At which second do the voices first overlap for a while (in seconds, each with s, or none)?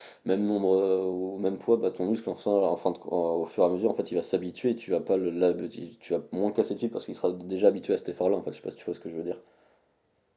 none